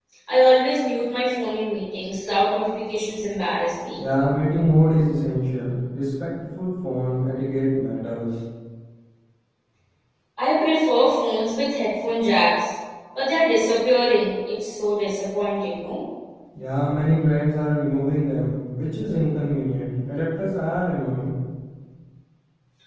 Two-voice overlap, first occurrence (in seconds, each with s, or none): none